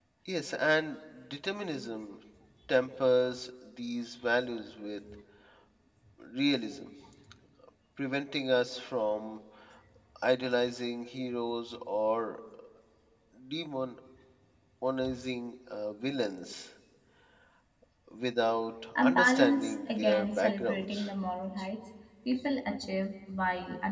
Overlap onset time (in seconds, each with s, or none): 18.9 s